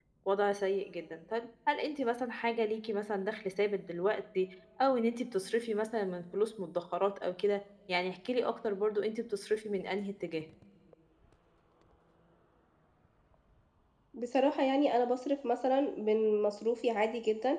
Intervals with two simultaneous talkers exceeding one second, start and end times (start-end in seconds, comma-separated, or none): none